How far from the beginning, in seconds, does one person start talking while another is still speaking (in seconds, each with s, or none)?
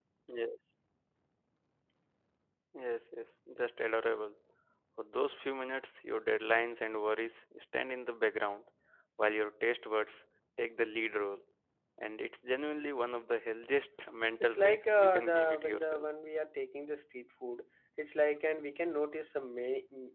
14.4 s